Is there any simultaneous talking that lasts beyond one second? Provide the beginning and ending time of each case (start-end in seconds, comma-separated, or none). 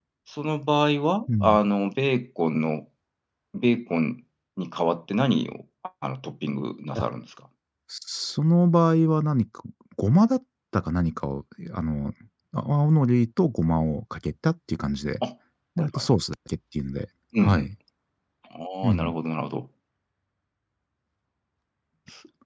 none